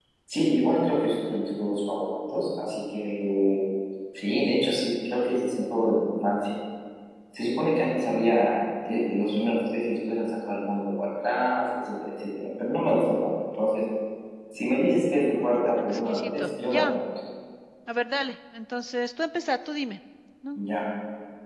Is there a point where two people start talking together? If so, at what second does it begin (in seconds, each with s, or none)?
15.3 s